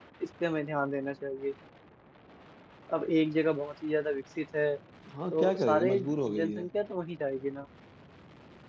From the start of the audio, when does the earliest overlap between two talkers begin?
5.3 s

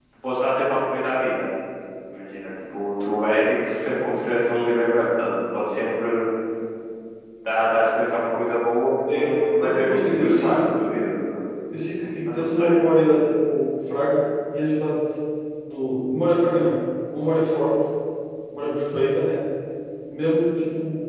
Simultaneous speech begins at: 9.1 s

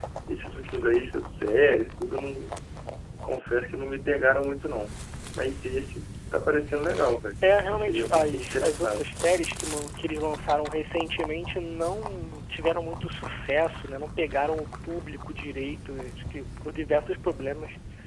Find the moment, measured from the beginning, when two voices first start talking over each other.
7.7 s

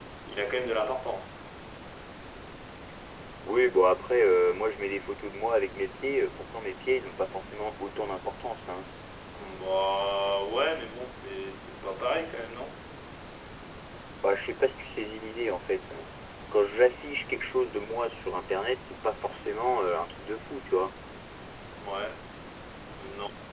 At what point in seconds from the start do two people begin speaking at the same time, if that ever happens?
none

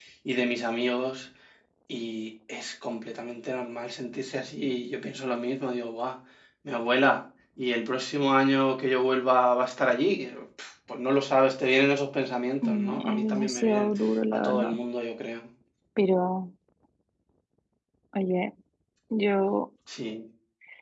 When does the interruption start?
12.6 s

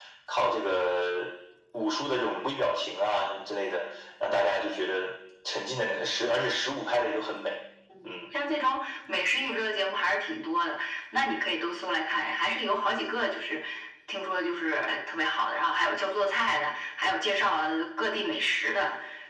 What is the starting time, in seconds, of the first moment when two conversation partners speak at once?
none

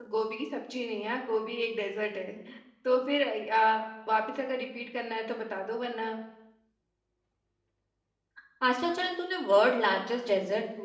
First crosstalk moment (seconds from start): none

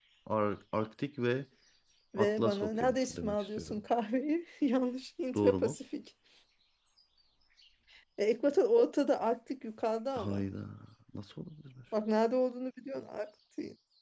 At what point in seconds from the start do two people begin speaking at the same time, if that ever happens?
2.2 s

